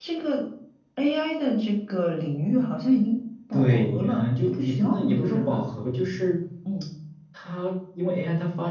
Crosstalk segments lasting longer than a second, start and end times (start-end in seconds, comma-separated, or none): 3.5-5.7